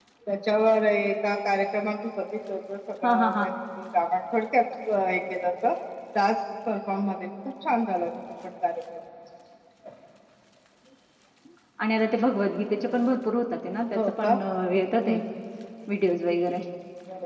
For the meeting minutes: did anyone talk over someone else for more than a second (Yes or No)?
No